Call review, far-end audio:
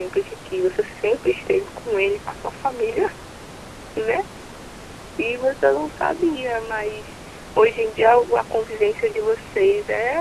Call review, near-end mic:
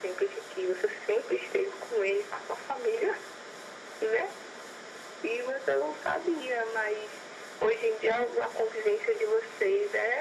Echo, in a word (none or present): present